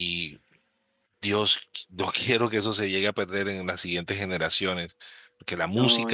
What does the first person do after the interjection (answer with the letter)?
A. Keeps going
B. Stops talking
A